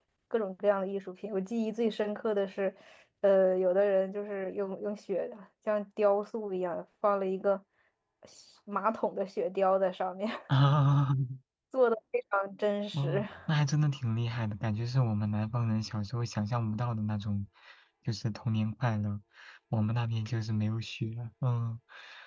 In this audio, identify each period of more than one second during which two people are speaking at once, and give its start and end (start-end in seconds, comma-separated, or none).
none